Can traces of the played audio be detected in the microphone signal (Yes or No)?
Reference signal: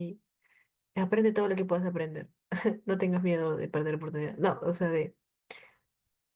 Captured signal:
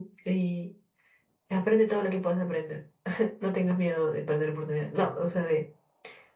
Yes